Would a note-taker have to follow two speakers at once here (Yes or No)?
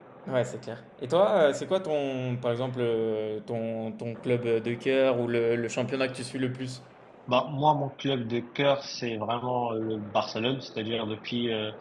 No